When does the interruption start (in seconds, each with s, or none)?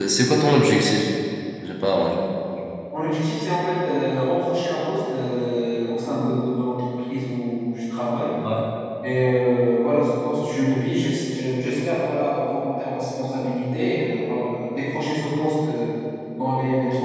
none